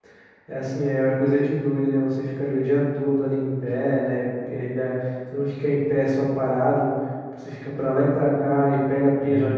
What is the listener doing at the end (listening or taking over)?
listening